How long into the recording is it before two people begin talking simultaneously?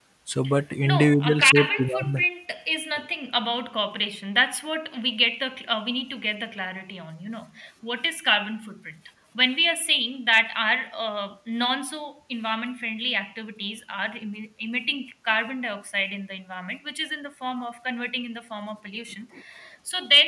0.8 s

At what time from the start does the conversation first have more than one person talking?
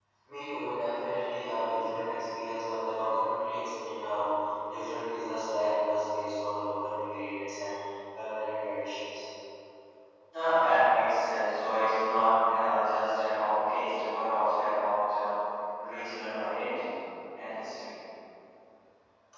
none

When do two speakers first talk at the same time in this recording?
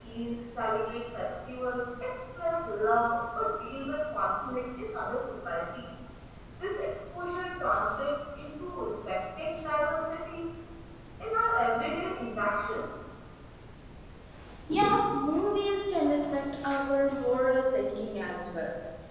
none

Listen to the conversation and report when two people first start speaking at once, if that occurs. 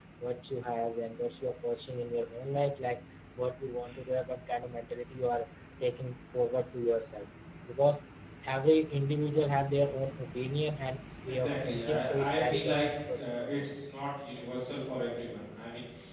11.3 s

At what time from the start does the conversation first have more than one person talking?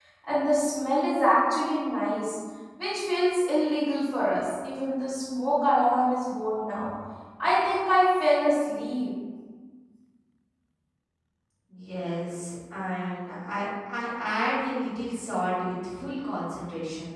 none

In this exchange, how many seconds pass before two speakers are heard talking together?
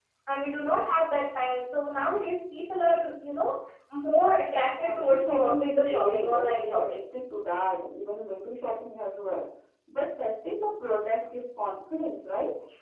4.8 s

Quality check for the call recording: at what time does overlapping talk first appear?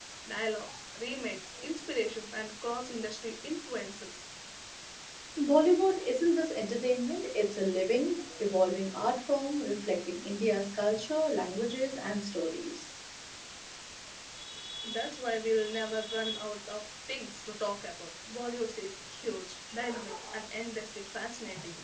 none

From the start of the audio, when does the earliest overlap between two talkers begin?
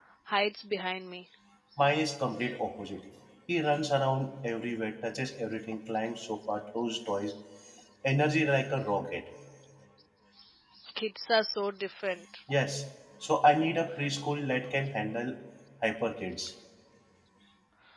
none

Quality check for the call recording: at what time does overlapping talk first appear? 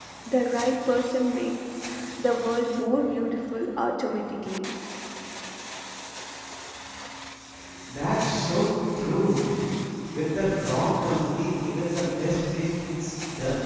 none

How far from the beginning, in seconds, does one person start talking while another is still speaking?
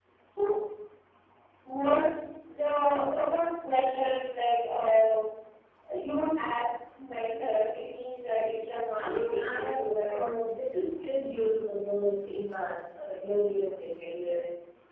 9.0 s

